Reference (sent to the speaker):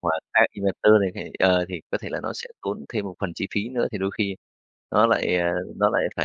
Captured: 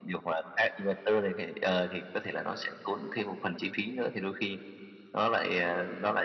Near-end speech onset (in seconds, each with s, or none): none